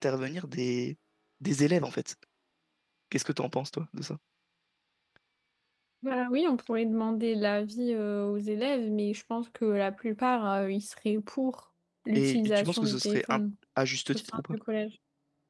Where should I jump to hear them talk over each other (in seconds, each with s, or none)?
12.2 s